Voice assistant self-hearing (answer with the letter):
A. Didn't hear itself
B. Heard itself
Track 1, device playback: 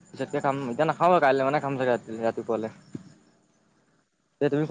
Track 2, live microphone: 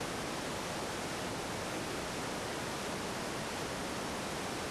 A